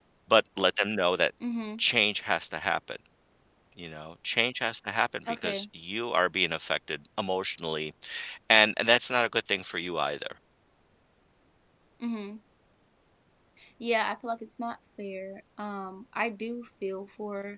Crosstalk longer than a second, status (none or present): none